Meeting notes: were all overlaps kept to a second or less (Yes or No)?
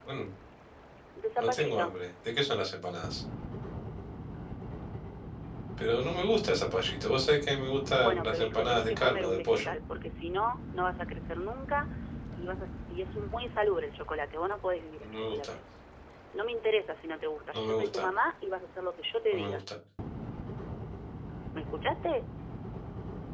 No